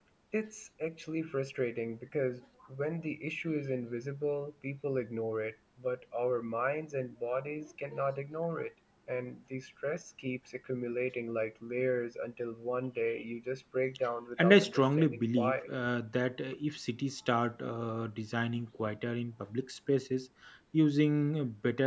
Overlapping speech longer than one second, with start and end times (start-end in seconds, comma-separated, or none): 14.4-15.7